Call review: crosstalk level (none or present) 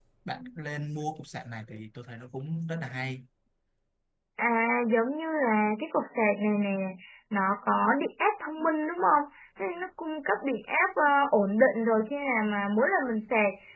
none